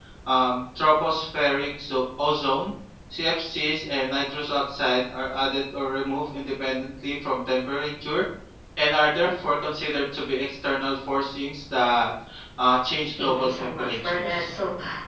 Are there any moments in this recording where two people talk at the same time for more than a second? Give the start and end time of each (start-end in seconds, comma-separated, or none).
13.2-14.5